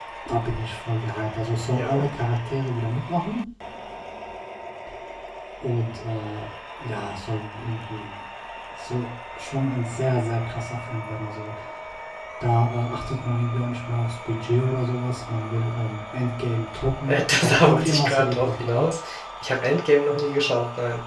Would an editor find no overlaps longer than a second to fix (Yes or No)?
No